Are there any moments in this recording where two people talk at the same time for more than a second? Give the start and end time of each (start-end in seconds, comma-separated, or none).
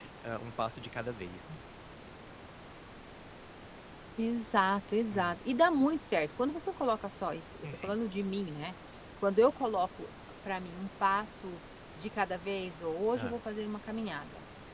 none